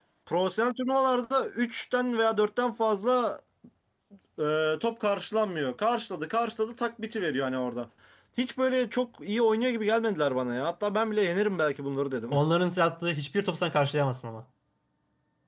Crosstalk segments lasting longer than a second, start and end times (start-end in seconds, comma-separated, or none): none